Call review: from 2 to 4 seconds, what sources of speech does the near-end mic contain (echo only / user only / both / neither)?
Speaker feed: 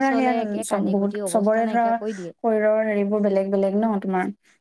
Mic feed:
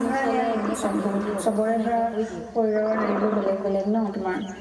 echo only